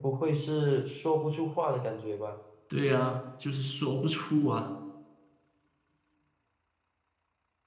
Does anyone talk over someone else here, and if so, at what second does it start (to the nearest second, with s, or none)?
none